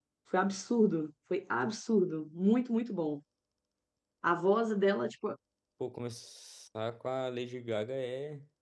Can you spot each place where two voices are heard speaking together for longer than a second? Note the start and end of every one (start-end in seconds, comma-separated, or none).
none